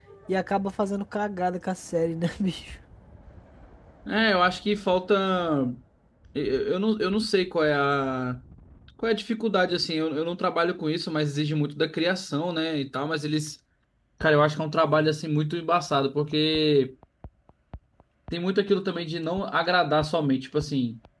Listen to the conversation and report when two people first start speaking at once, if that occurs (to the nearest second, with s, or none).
none